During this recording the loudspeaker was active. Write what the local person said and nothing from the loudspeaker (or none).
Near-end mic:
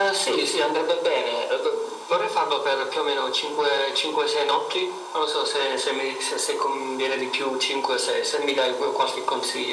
none